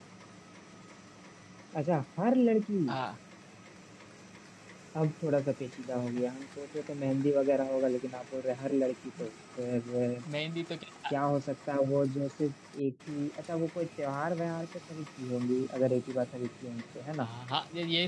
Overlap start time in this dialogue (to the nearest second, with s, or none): none